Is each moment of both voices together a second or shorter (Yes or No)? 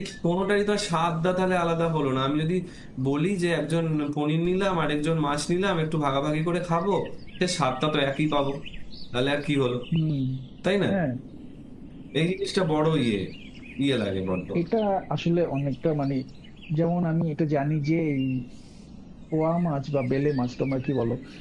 Yes